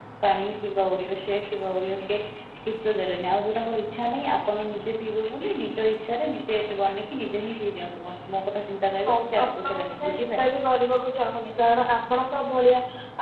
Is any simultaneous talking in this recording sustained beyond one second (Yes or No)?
Yes